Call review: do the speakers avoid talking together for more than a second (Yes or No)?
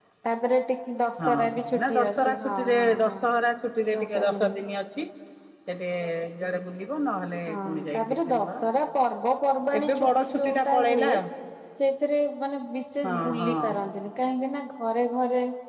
No